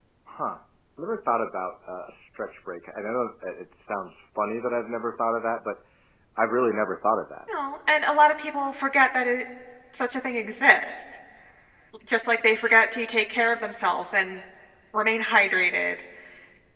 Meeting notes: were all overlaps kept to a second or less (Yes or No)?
Yes